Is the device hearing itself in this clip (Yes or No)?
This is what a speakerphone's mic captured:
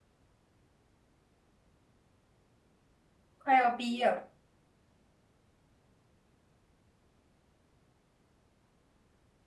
No